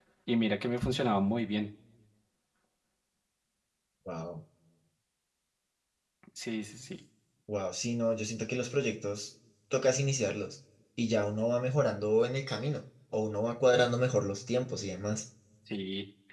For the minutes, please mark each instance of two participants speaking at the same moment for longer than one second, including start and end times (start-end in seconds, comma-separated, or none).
none